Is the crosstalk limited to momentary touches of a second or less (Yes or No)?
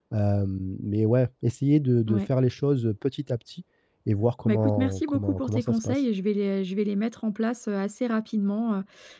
No